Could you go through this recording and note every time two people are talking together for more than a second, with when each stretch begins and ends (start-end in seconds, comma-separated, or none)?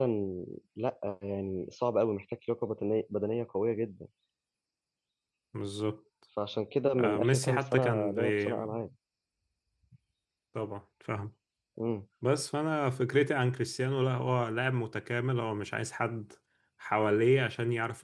7.0-8.5